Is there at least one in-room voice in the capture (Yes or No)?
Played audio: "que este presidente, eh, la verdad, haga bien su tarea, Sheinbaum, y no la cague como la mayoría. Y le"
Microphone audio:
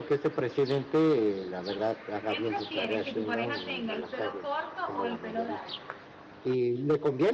Yes